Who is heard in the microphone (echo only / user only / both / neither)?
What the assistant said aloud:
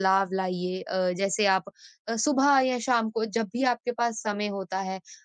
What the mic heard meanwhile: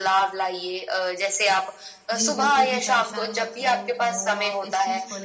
both